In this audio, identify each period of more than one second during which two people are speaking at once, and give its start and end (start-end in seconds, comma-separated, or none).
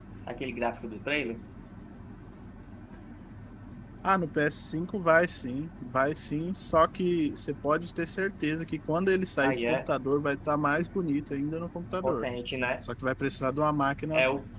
none